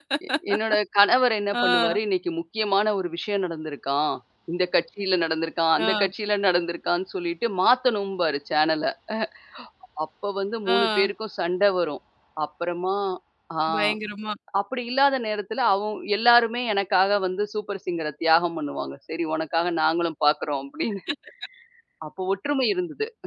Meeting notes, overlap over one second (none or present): none